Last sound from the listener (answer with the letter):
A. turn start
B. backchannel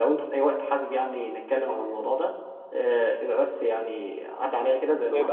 A